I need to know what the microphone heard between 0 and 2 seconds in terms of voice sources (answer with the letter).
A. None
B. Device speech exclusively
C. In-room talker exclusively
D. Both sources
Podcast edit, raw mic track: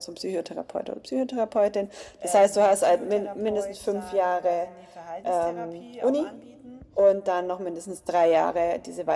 B